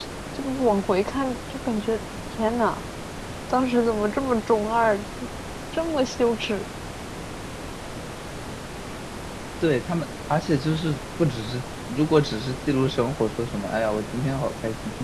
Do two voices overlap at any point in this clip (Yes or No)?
No